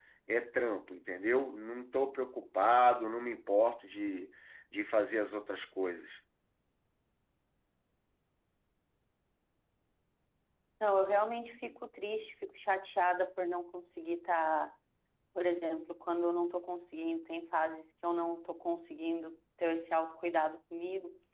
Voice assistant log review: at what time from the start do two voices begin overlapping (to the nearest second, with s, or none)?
none